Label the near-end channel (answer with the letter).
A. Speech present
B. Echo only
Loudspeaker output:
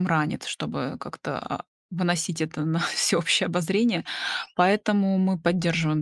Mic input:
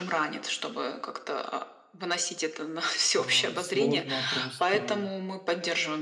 A